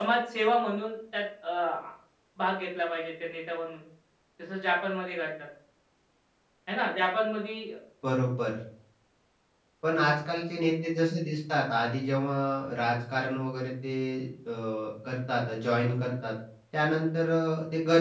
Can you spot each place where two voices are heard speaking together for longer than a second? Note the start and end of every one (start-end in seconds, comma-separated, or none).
none